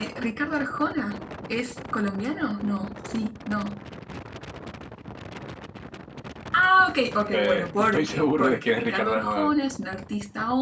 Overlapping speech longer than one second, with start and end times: 7.3-9.5

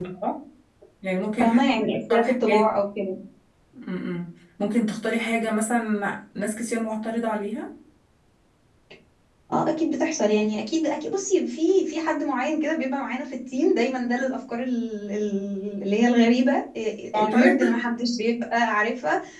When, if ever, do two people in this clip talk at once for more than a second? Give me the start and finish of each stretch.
1.4-2.6

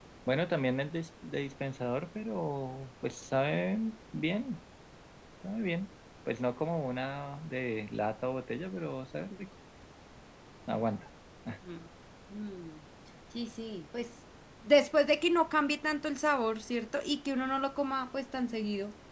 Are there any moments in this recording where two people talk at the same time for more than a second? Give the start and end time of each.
none

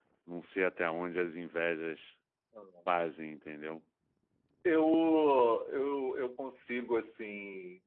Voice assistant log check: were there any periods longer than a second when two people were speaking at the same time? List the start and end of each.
none

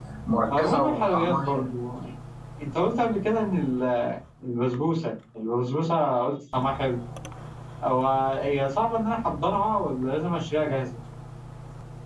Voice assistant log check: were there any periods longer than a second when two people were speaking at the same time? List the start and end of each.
0.5-1.7

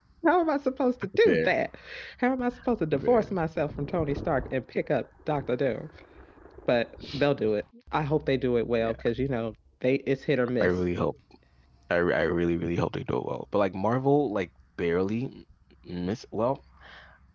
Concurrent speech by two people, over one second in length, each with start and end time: none

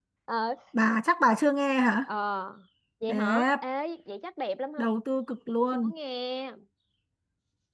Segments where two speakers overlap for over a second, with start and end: none

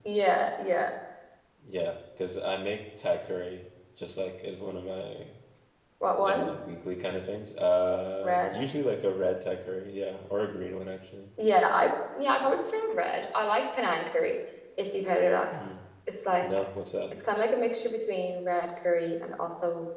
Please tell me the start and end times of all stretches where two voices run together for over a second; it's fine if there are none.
none

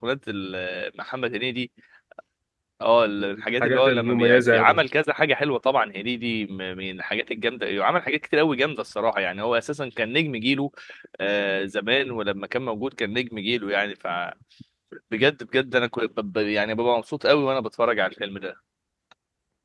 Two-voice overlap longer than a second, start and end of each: 3.2-4.8

